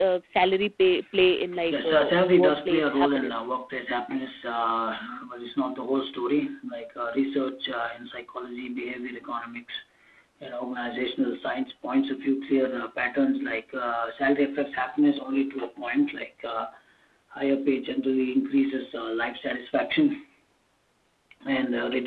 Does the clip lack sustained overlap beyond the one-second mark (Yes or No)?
No